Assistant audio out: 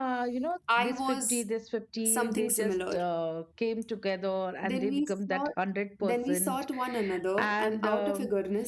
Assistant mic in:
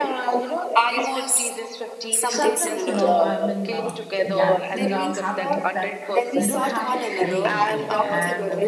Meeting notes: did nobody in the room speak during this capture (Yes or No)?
No